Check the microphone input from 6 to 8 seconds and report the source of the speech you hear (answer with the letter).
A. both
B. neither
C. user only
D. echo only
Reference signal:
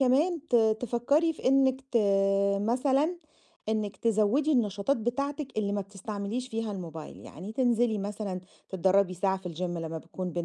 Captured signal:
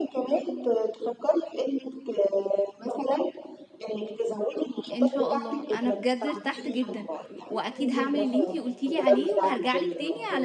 A